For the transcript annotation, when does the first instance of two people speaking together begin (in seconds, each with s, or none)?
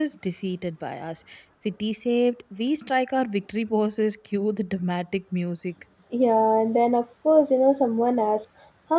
none